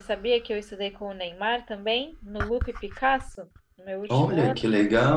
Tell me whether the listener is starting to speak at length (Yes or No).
Yes